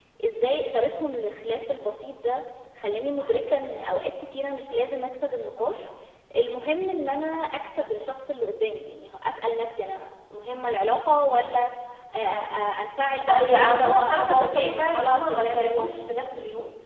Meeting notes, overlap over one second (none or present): present